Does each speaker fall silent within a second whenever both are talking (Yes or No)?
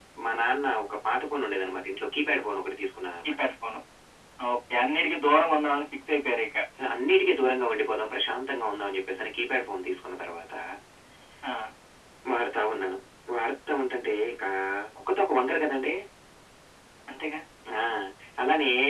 Yes